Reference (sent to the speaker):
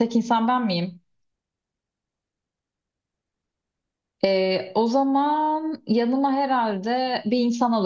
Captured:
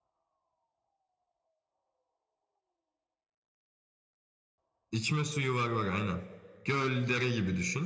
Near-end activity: present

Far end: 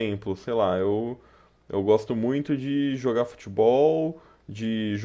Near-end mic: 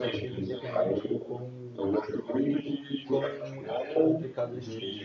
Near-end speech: present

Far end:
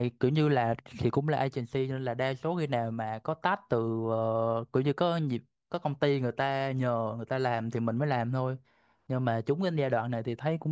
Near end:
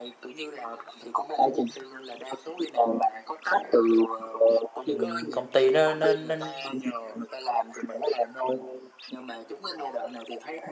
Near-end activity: present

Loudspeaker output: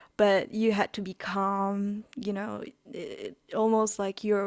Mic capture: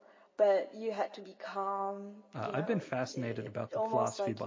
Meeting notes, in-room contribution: present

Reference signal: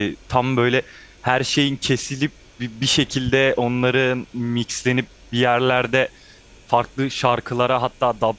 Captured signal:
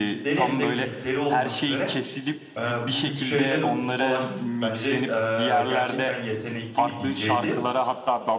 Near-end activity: present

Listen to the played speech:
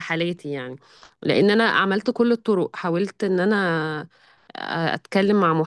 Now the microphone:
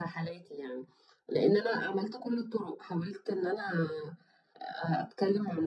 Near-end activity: none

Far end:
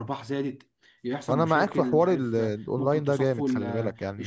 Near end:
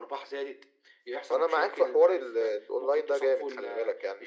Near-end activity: none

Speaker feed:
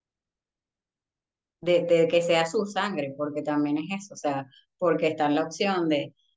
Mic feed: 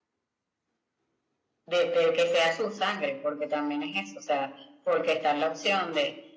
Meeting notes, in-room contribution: none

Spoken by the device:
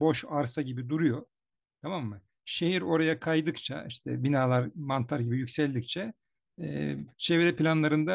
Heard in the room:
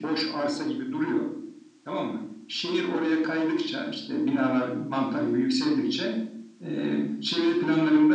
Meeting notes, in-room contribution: none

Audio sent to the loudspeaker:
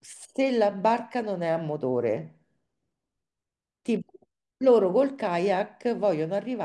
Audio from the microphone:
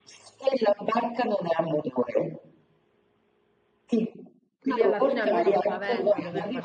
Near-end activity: present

